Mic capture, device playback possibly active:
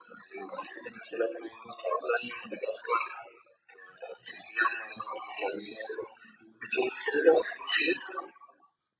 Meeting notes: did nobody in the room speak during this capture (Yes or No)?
Yes